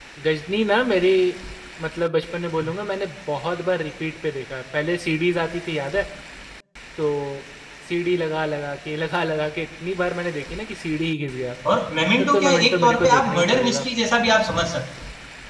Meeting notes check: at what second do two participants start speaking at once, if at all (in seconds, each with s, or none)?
12.2 s